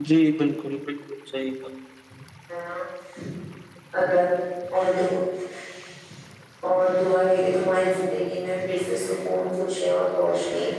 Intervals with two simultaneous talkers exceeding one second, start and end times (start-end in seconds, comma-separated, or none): none